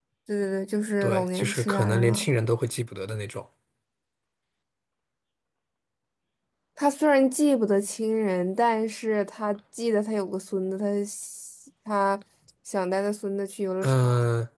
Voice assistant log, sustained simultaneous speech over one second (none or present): present